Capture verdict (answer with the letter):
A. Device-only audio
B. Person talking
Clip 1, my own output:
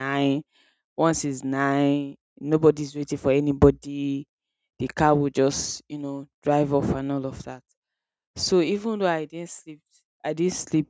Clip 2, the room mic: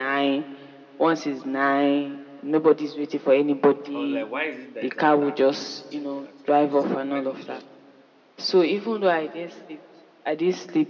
B